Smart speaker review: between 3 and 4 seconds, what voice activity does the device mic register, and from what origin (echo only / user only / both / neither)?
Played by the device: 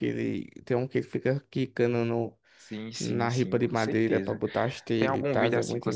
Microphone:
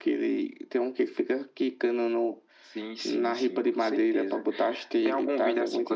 echo only